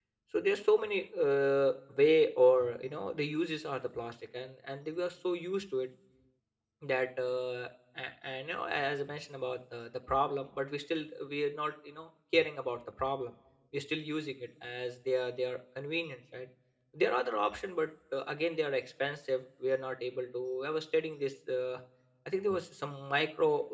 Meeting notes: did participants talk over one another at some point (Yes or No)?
No